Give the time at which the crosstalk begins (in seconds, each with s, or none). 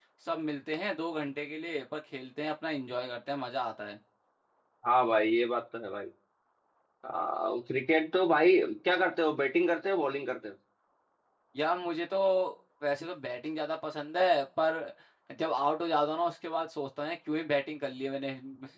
none